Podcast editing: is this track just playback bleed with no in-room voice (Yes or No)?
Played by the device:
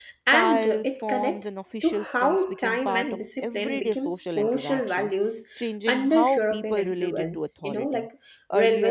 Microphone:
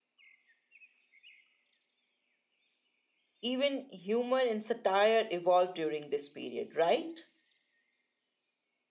No